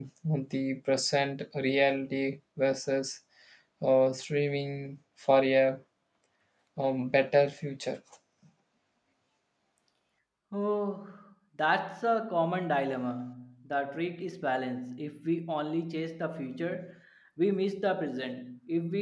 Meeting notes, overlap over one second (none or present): none